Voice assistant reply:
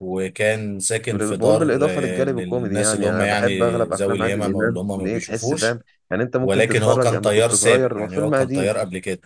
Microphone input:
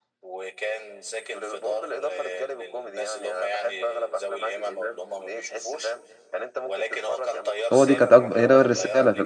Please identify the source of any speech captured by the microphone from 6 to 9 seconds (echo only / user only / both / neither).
both